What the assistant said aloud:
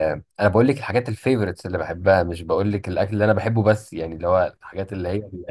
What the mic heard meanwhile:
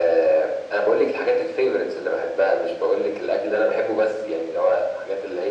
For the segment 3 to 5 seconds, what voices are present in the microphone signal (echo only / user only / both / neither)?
echo only